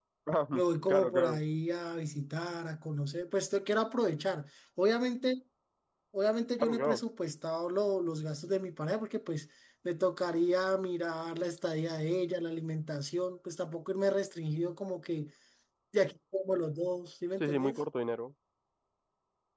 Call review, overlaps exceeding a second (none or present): none